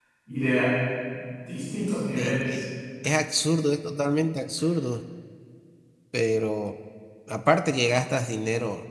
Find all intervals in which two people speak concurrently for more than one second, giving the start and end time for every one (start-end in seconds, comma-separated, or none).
none